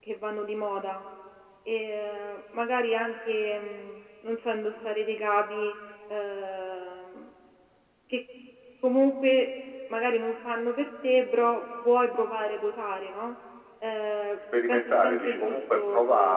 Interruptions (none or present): present